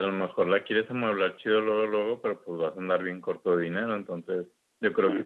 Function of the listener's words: listening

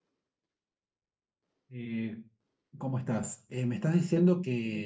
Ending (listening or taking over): listening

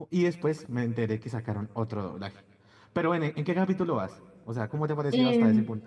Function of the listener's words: taking over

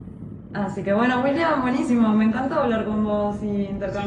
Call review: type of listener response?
taking over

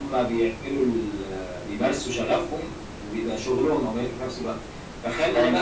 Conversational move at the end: listening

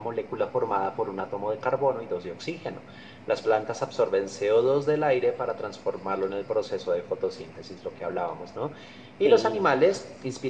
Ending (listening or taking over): listening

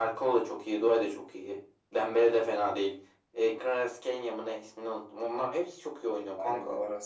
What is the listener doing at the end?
taking over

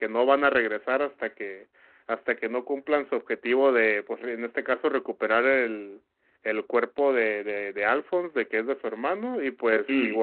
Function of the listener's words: listening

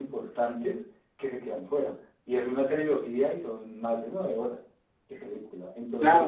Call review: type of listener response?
listening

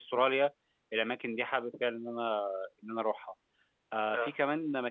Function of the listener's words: listening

